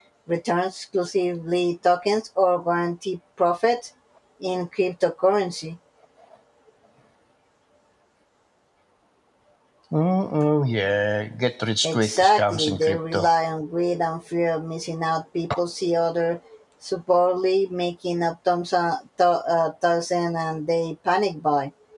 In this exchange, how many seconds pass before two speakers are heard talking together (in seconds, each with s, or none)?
11.8 s